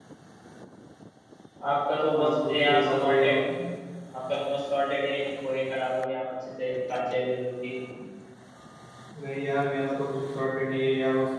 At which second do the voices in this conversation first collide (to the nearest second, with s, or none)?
2 s